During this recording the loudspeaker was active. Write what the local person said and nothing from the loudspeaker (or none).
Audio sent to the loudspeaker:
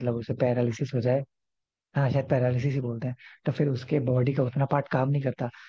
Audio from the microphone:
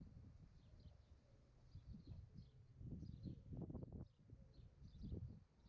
none